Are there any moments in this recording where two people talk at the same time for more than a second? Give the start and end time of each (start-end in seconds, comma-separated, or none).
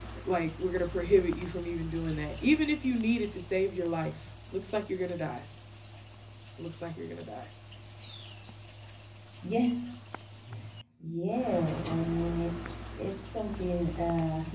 none